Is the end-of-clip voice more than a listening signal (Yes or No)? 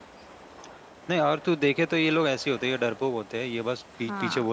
No